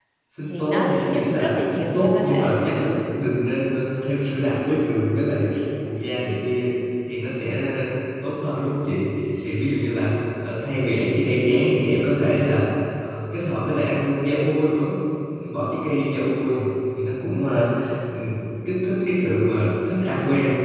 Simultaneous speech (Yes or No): Yes